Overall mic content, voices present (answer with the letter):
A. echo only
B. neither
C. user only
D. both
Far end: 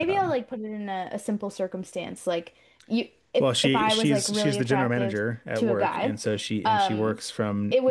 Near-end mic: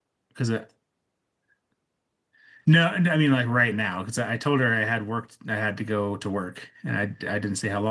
C